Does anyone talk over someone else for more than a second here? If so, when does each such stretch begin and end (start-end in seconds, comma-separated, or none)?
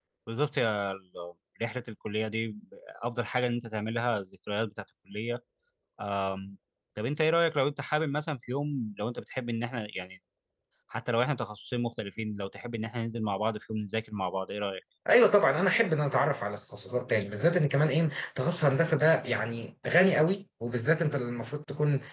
none